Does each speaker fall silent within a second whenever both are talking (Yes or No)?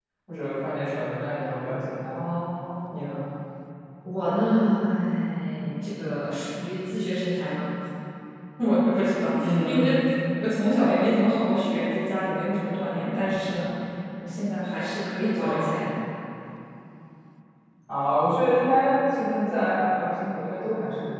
Yes